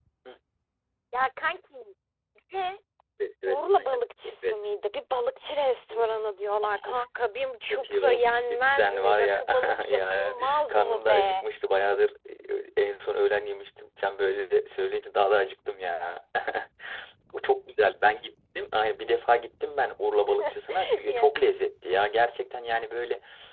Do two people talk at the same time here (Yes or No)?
Yes